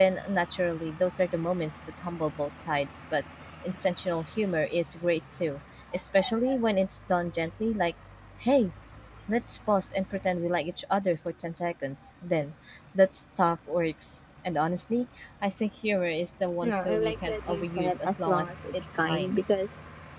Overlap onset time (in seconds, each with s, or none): 16.6 s